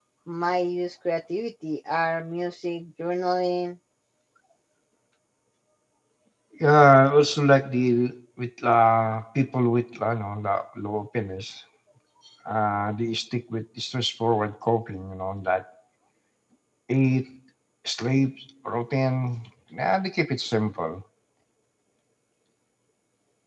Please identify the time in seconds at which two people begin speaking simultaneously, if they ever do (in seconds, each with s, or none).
none